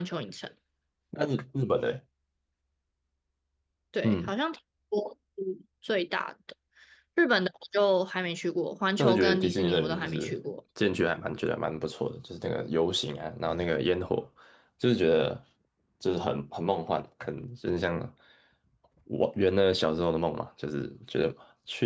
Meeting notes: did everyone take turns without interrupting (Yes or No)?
No